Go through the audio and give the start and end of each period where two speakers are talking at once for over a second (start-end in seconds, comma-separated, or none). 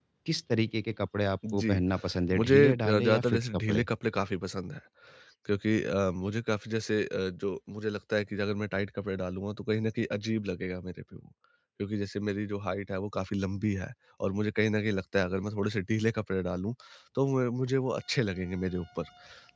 2.4-3.8